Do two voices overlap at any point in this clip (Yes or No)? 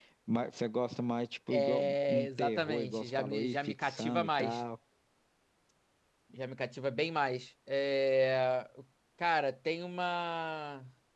Yes